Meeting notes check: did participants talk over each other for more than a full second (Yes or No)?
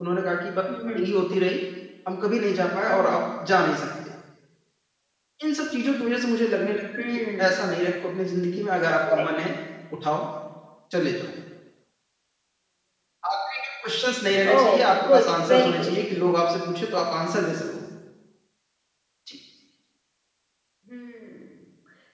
Yes